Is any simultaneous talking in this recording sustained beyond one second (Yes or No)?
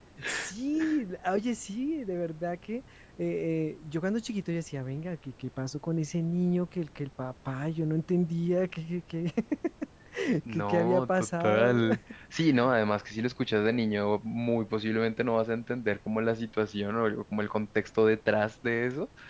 Yes